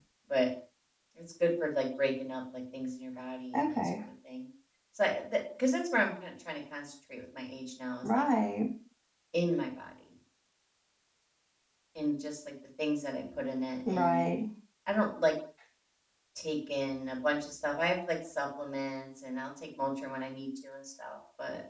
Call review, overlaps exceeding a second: none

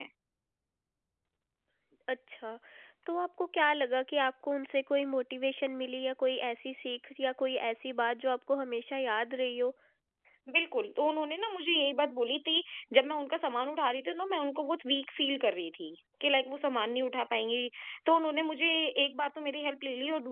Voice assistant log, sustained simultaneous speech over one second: none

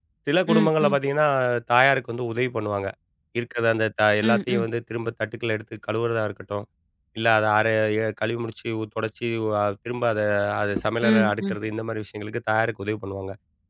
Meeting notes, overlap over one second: none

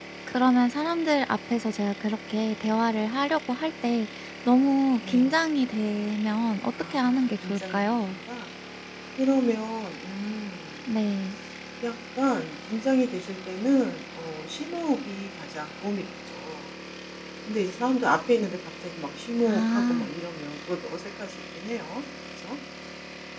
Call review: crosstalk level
present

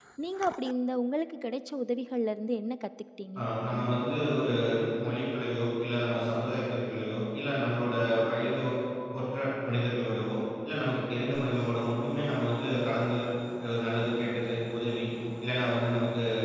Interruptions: none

